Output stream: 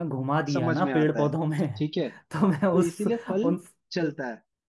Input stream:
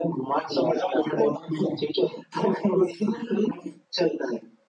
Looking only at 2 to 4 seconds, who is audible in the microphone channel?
echo only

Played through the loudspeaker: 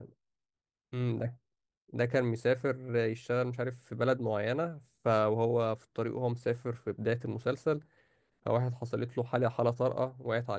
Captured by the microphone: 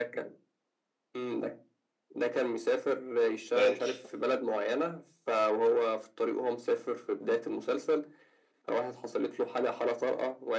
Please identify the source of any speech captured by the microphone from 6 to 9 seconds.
echo only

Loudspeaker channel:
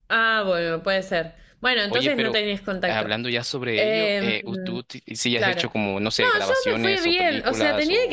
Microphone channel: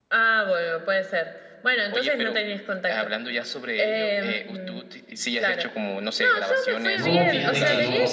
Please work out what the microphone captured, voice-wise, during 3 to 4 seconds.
echo only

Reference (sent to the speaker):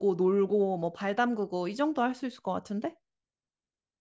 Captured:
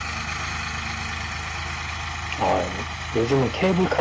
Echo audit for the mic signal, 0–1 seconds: neither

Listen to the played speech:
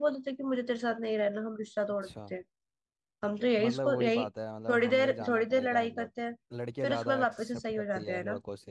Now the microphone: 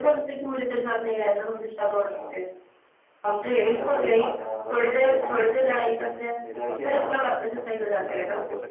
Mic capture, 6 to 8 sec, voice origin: both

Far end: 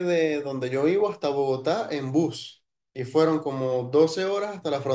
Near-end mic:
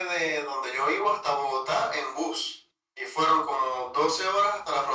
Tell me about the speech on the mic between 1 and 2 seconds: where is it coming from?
echo only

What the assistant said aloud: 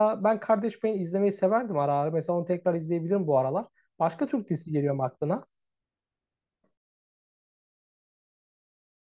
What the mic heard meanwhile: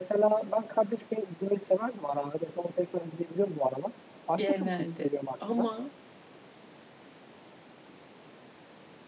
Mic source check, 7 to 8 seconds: neither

